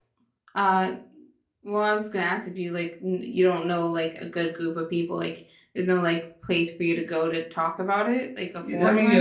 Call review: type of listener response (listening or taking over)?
taking over